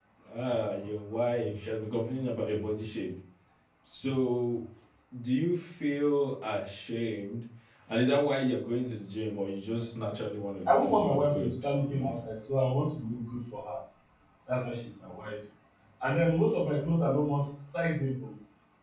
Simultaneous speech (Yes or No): Yes